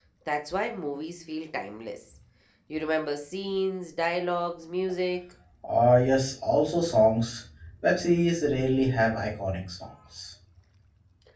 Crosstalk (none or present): none